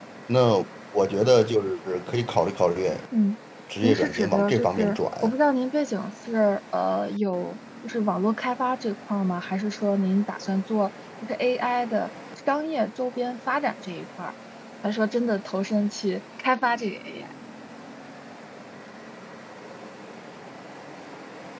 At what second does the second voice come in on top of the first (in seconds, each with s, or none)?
3.8 s